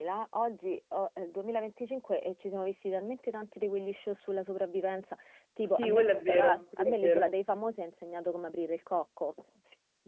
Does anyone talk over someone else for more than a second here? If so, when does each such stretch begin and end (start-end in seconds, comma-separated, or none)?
5.6-7.3